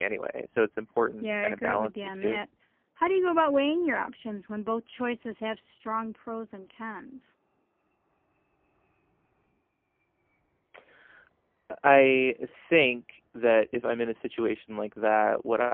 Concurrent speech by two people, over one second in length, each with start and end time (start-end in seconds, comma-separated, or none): 1.2-2.4